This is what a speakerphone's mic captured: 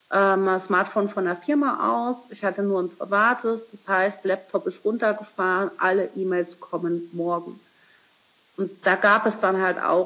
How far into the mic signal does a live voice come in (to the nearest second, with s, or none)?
none